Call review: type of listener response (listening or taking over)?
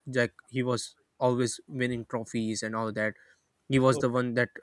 listening